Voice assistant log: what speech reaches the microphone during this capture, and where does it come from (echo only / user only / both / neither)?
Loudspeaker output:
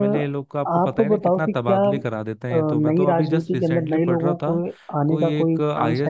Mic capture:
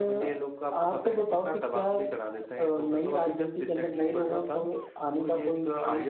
echo only